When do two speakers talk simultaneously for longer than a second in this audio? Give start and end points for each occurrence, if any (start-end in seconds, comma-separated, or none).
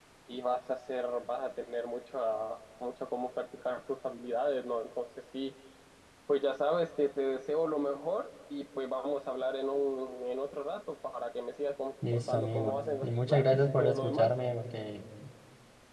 12.1-14.3